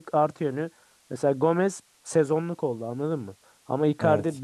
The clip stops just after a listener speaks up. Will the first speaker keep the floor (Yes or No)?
Yes